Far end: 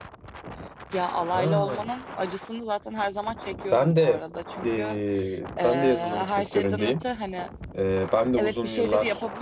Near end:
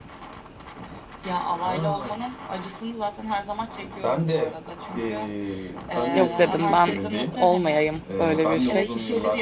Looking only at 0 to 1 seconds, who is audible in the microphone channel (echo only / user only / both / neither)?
neither